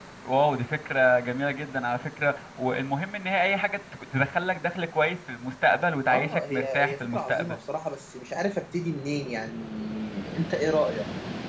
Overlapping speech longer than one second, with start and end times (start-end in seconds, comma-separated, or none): 6.1-7.6